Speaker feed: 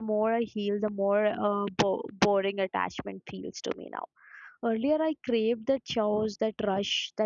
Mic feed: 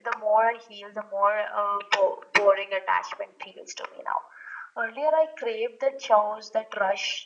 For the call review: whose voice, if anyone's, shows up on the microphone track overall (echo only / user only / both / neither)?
echo only